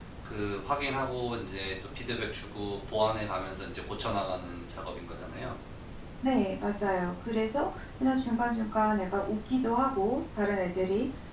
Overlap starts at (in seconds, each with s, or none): none